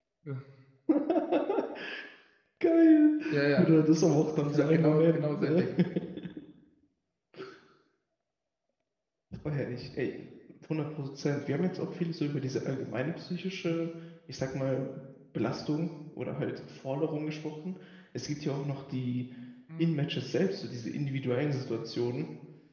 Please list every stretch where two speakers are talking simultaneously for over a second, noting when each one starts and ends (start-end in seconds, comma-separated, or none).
4.4-5.6